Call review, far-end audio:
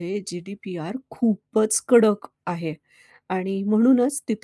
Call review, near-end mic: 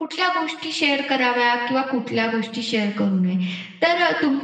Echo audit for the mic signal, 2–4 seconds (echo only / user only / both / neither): user only